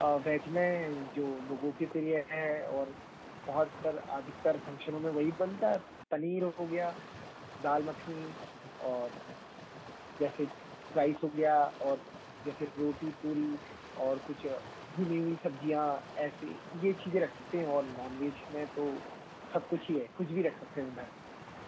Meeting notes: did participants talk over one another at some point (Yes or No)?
No